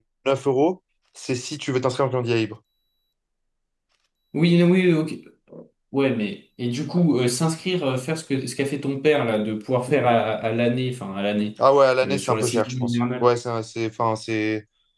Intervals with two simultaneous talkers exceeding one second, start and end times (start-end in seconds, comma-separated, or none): 12.0-13.3